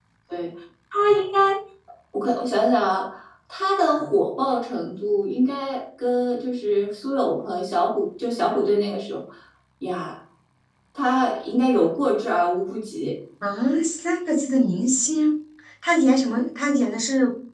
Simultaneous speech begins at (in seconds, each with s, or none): none